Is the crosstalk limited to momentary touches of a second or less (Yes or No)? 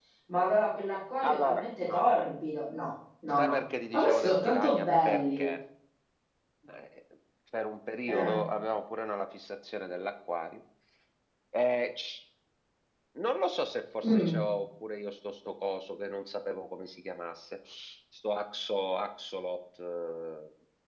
No